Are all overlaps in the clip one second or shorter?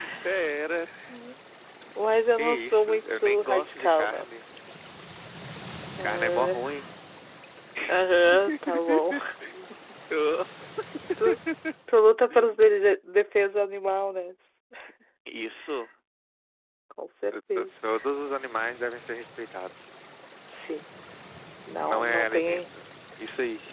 No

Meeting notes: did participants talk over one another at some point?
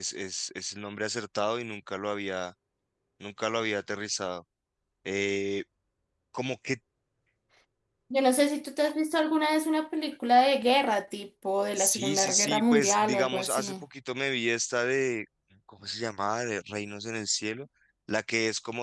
Yes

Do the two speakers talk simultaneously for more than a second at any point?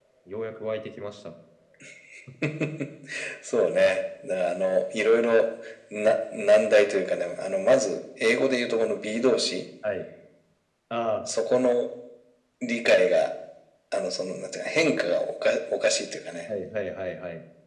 No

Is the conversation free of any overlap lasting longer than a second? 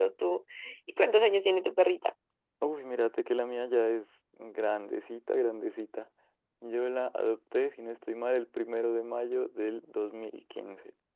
Yes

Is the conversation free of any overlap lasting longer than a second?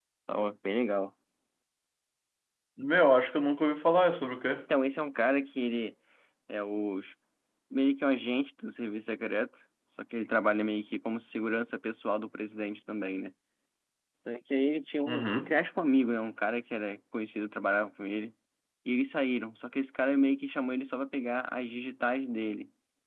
Yes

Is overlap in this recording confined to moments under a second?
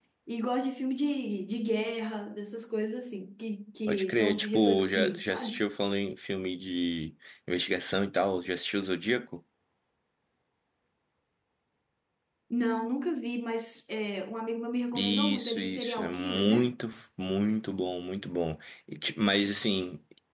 No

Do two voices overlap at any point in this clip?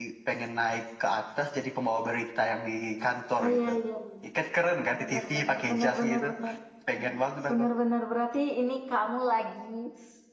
Yes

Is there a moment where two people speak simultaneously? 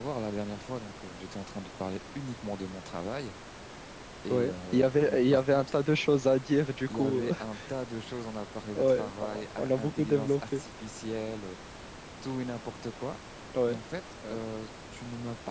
Yes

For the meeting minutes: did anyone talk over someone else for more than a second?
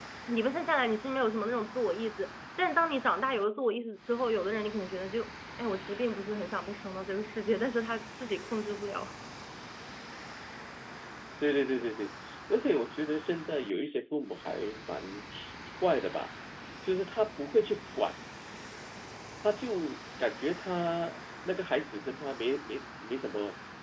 No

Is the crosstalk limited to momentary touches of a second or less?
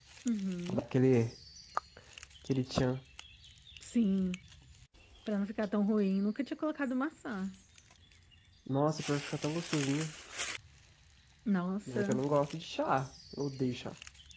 Yes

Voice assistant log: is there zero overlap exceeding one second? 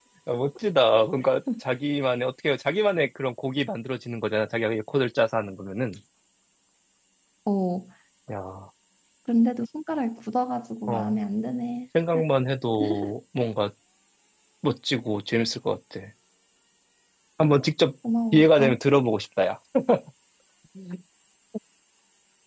Yes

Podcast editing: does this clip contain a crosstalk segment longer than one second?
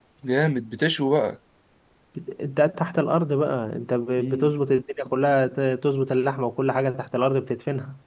No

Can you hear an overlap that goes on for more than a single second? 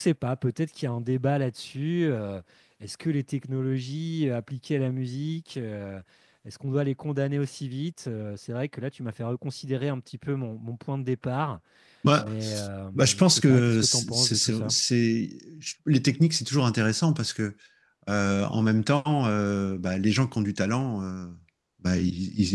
Yes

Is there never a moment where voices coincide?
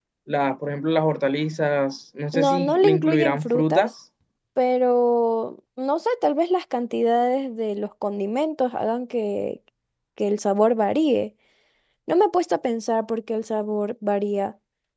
No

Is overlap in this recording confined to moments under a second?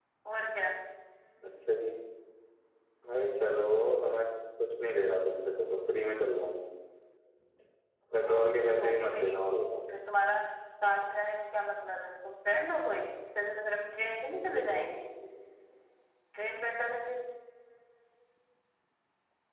No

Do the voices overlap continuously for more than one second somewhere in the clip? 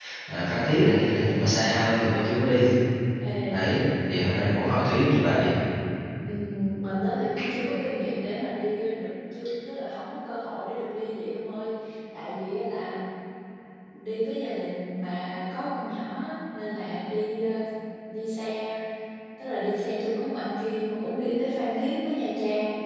No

